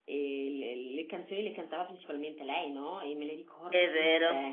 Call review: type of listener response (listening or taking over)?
listening